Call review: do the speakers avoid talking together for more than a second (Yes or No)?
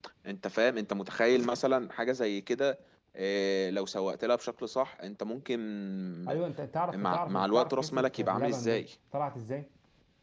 No